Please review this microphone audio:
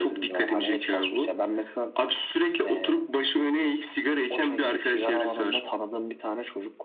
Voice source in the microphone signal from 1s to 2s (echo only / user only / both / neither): echo only